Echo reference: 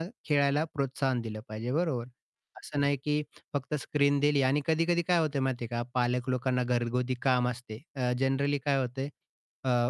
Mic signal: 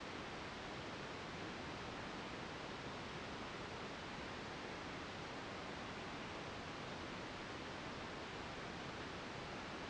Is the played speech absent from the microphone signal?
Yes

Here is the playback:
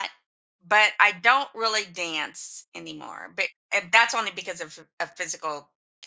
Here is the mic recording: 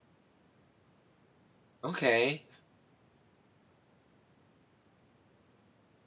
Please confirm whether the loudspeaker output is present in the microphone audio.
No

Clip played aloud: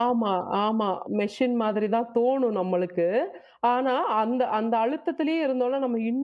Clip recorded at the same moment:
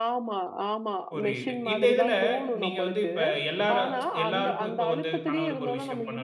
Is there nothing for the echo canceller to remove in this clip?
No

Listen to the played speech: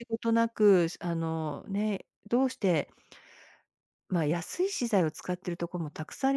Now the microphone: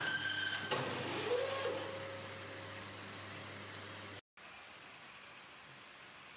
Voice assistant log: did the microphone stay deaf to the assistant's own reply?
Yes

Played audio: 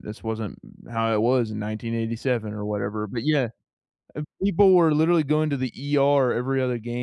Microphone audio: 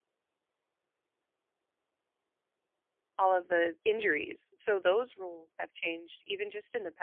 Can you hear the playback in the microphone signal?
No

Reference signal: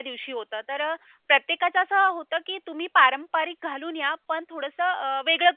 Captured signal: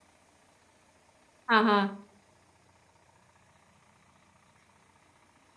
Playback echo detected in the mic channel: No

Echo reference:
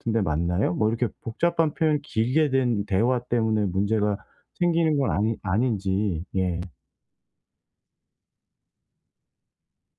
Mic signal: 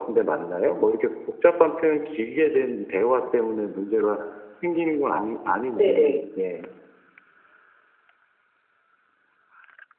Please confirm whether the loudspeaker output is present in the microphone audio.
Yes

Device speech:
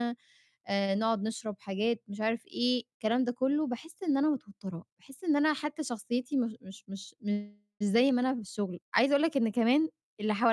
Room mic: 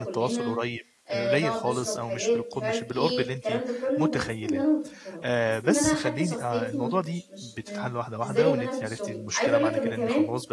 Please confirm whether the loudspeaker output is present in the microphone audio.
Yes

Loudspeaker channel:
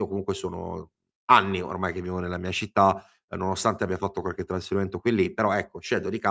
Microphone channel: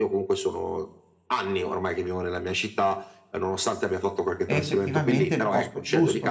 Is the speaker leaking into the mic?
Yes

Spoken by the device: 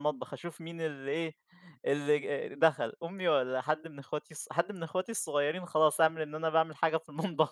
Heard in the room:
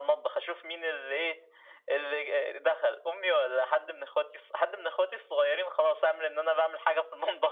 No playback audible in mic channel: No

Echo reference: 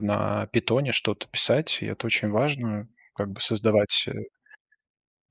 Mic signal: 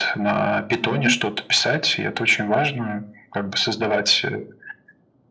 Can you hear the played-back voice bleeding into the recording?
Yes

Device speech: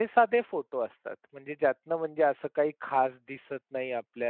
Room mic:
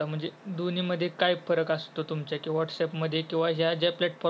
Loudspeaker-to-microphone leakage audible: No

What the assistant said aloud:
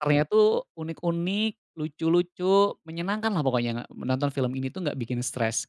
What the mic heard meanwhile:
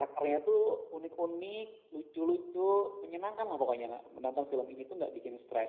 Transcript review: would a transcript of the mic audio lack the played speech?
No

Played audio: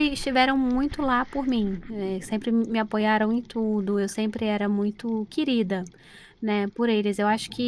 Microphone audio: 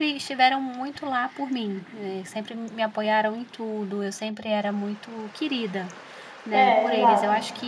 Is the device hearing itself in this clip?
Yes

